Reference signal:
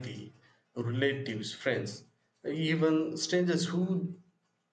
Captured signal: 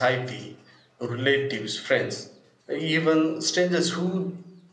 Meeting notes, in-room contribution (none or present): none